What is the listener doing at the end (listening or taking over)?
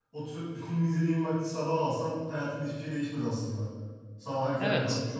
taking over